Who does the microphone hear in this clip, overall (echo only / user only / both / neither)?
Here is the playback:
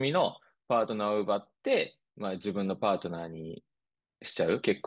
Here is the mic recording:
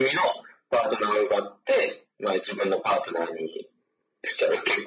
echo only